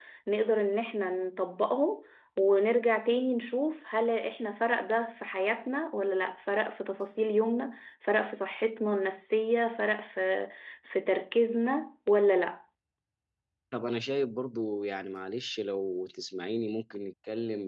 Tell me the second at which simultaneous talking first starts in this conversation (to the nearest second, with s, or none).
none